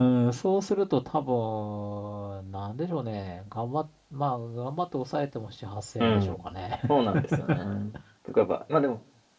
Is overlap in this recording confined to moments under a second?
Yes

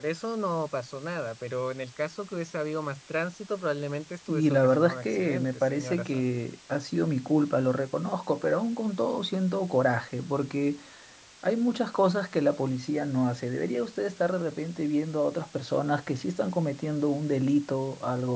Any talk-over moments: Yes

